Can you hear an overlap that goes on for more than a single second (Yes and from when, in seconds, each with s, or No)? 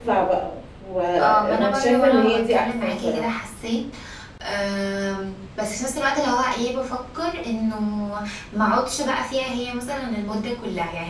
Yes, from 1.2 s